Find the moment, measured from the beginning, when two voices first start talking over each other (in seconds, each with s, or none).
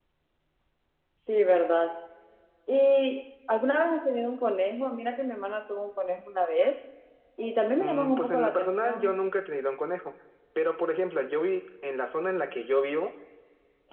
7.8 s